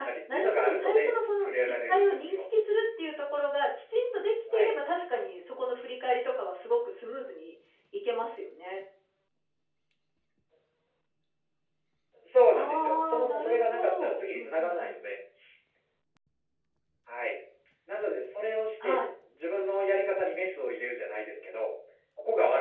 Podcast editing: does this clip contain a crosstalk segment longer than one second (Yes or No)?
Yes